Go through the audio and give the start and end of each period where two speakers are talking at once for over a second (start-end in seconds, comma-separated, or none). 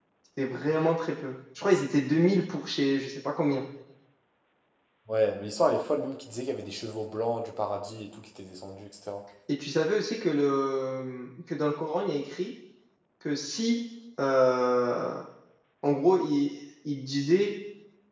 none